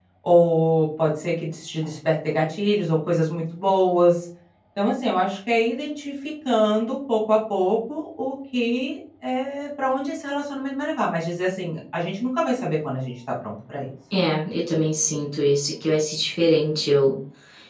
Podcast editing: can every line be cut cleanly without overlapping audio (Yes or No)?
Yes